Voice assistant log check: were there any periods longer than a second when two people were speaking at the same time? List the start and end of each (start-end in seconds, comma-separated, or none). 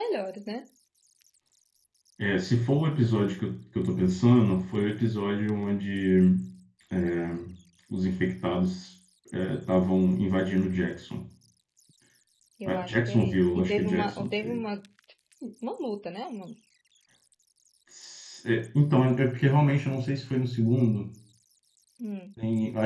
12.7-14.6